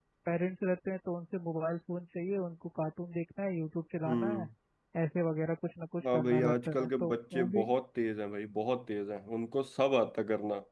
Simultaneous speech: Yes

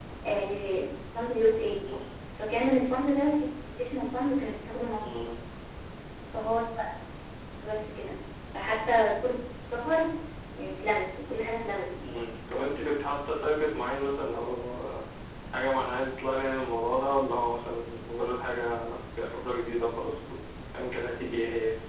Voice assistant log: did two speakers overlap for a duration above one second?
No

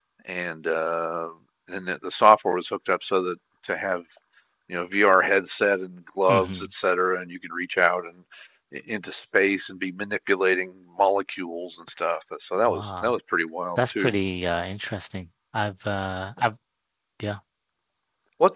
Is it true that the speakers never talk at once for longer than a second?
Yes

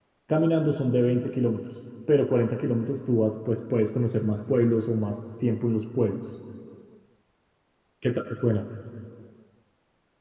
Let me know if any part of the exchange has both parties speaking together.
No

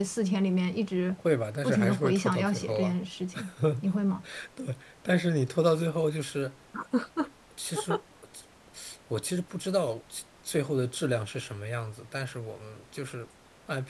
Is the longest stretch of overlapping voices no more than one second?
No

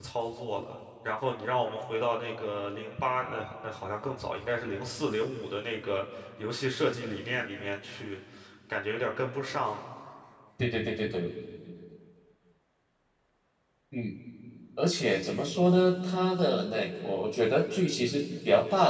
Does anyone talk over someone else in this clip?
No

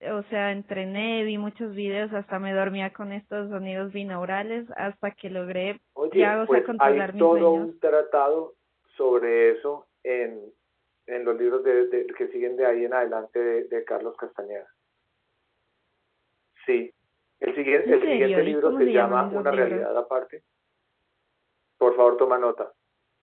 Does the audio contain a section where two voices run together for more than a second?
Yes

